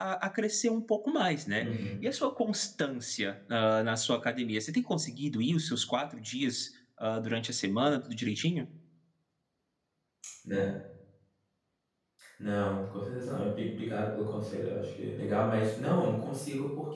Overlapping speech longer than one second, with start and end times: none

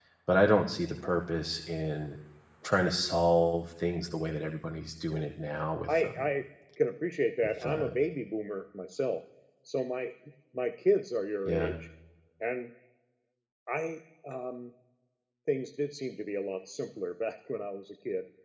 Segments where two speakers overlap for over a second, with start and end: none

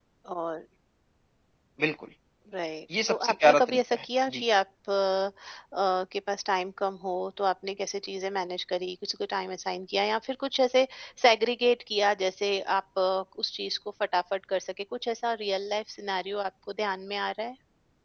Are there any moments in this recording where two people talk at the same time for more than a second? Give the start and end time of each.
3.1-4.4

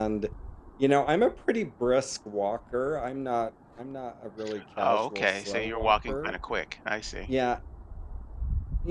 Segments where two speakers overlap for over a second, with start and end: 4.8-6.3

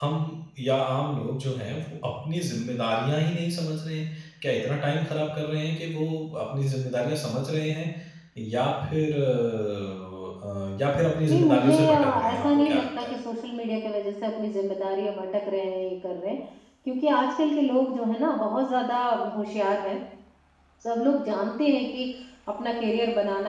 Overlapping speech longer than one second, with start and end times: 11.3-13.1

